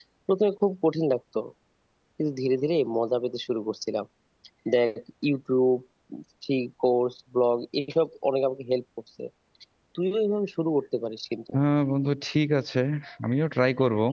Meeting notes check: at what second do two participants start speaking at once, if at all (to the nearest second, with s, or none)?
none